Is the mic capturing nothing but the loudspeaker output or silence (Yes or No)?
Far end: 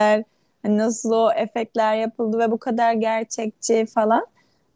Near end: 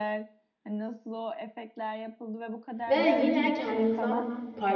No